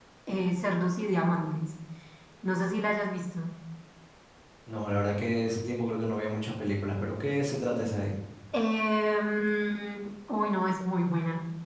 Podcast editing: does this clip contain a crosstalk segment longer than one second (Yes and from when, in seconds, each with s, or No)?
No